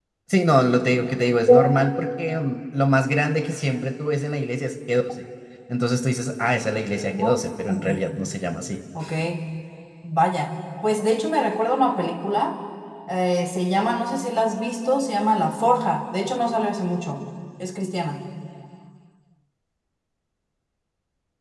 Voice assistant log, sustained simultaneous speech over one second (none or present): none